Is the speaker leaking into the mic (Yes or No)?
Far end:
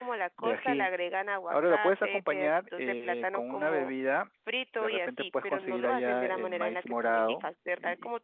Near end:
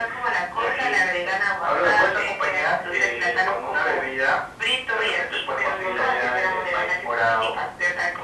Yes